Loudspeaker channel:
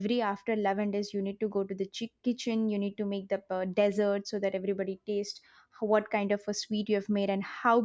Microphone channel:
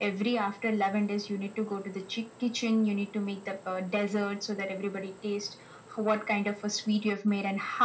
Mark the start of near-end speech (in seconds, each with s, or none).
none